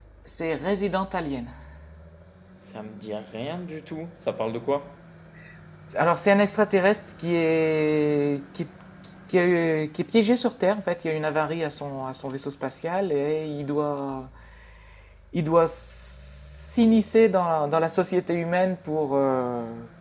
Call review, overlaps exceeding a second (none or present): none